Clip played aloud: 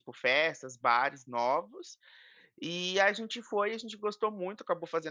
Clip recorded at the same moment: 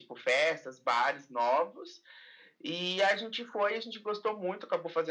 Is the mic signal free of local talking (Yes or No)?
Yes